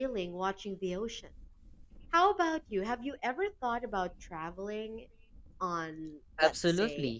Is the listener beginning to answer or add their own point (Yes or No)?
Yes